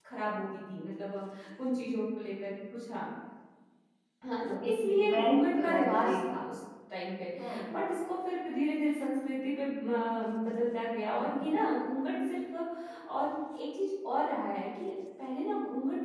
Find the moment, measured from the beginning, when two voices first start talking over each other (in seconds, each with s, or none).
4.4 s